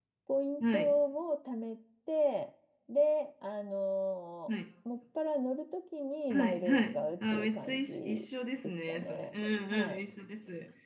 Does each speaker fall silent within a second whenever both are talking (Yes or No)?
No